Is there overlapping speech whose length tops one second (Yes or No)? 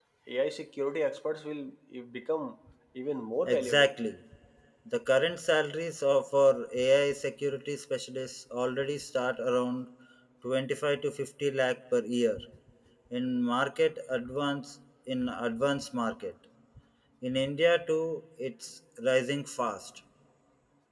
No